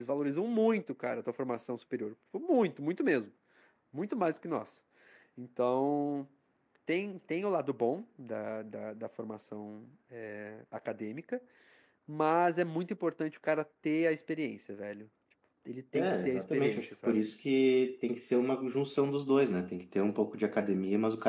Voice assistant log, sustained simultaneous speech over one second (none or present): present